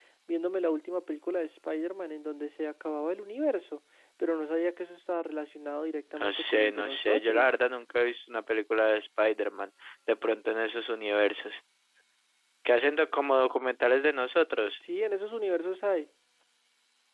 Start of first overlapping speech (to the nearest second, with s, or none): 6 s